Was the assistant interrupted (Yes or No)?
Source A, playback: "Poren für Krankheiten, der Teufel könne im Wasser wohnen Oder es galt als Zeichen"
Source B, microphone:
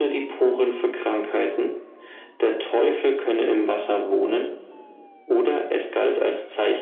No